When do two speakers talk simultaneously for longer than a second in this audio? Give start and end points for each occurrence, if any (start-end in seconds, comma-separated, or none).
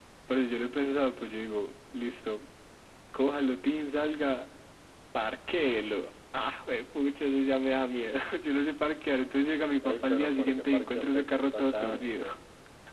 9.8-12.2